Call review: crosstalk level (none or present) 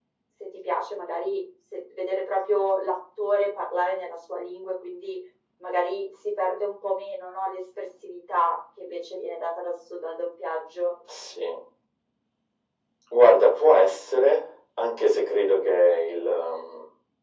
none